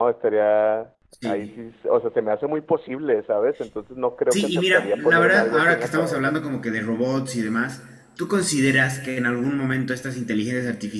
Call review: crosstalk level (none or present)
present